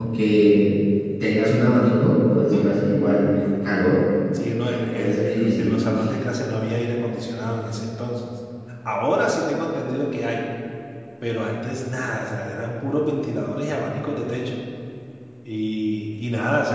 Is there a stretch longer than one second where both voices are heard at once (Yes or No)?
Yes